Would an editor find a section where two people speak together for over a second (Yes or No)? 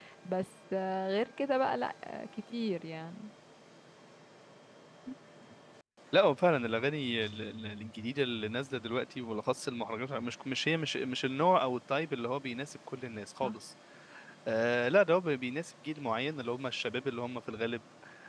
No